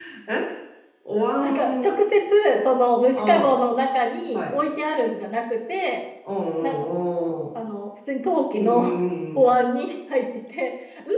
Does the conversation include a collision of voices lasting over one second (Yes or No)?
No